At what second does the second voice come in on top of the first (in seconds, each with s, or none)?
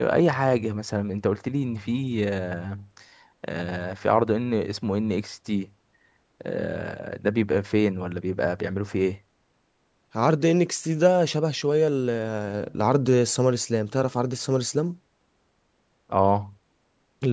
none